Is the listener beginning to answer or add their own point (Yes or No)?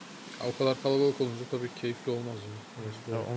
Yes